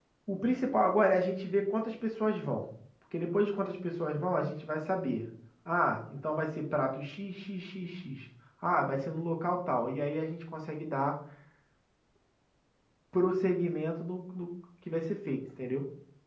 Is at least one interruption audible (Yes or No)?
No